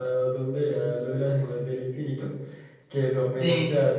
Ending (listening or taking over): listening